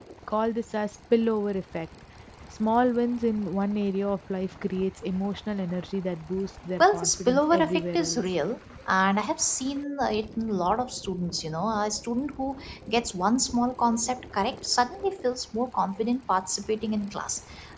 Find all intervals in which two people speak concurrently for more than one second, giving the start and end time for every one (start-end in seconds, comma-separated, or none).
6.8-8.2